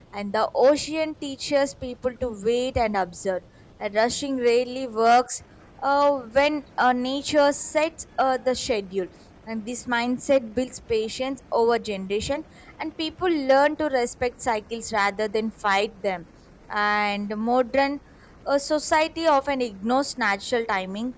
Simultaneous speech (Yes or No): No